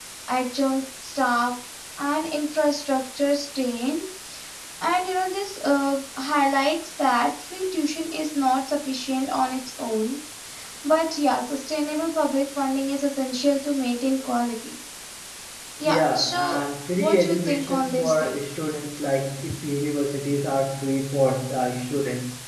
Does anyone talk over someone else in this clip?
Yes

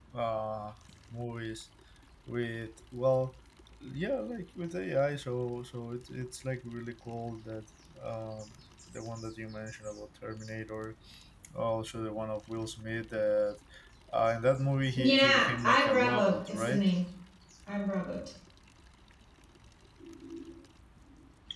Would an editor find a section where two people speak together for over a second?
Yes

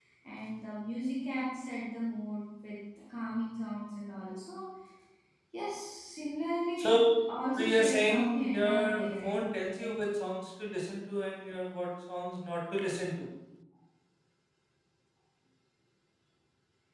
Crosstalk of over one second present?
Yes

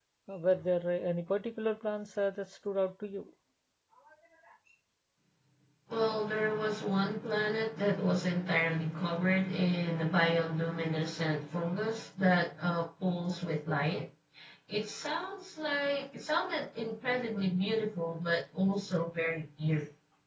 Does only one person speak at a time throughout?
Yes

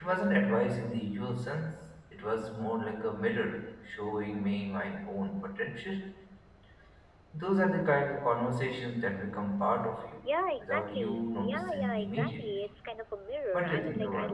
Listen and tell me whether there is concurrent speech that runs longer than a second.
Yes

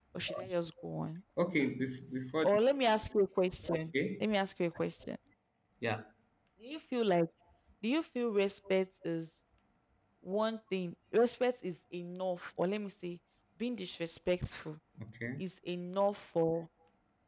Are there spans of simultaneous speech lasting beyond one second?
No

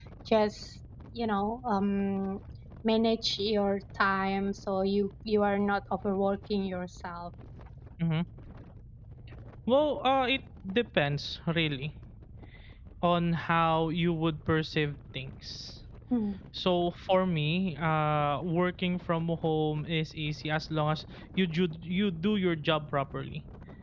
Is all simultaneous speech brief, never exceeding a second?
Yes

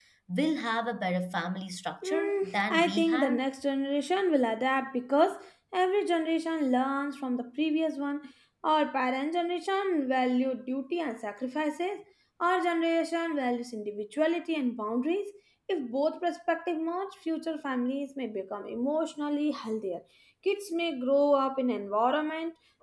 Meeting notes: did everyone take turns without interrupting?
No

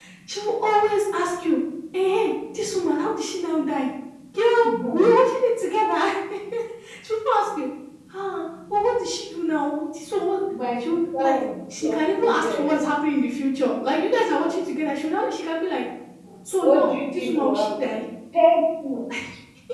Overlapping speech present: Yes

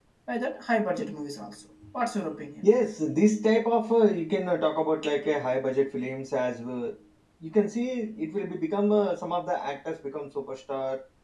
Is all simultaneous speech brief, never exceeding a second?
Yes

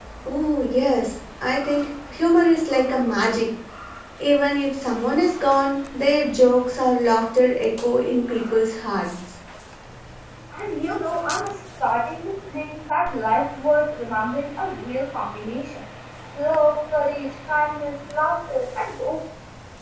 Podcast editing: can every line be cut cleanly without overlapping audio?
Yes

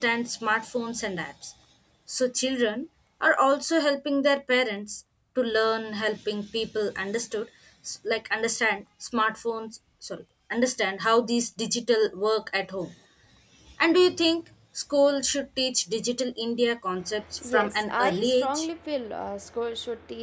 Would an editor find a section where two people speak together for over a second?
Yes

